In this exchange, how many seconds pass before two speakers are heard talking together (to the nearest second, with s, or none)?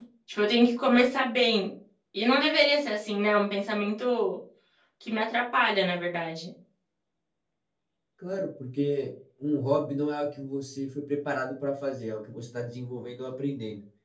none